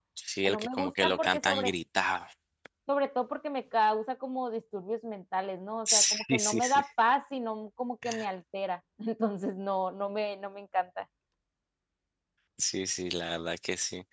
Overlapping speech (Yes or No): Yes